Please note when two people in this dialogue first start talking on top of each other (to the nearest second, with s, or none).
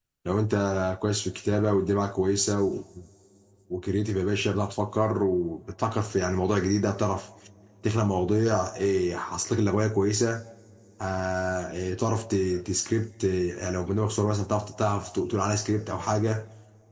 none